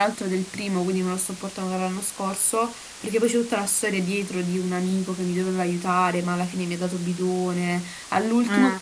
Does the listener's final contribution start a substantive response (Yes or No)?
No